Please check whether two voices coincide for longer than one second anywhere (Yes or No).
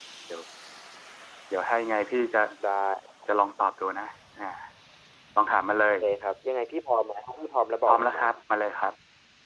No